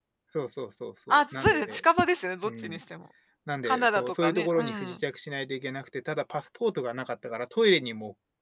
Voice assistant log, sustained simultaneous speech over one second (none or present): present